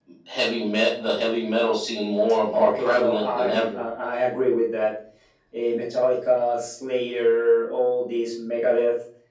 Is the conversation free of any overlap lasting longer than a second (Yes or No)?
No